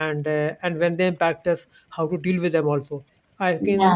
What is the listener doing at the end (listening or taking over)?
taking over